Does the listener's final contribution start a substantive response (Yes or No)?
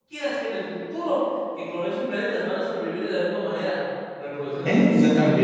Yes